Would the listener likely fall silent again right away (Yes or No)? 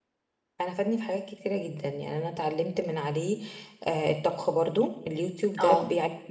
Yes